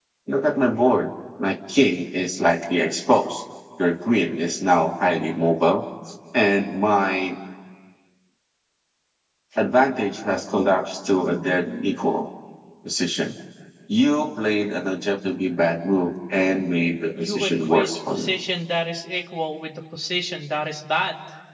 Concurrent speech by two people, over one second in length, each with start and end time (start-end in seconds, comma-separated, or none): 17.2-18.4